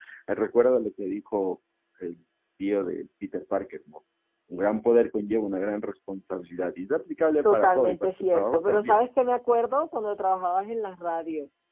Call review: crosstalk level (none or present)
present